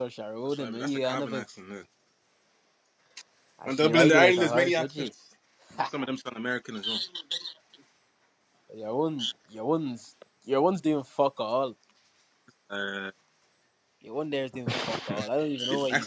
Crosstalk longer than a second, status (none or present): present